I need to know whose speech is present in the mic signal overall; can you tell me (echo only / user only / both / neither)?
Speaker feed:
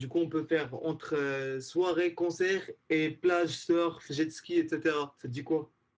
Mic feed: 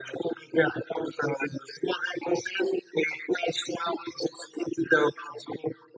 echo only